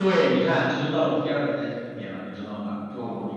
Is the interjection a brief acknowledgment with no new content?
Yes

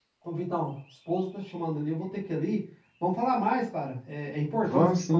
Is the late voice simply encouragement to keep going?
Yes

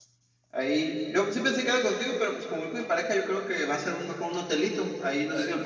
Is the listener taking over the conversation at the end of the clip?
No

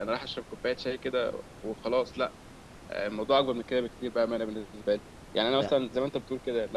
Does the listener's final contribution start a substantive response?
No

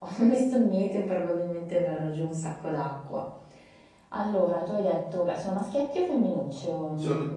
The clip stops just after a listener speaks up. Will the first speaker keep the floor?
No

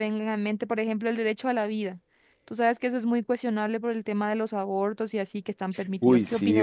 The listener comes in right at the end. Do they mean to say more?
Yes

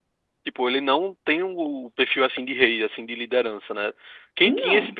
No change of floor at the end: Yes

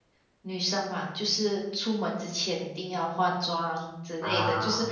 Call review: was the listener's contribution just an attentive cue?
Yes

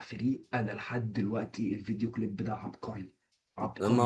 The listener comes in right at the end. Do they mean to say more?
Yes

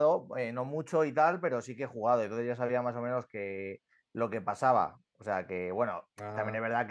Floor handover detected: No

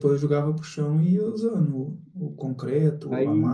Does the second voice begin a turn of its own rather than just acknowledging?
Yes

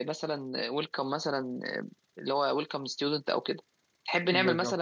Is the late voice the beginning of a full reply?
No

